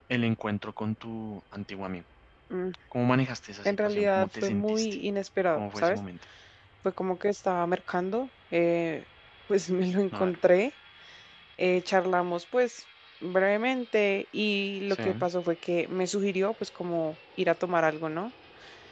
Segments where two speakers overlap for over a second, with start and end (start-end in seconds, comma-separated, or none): 3.6-5.0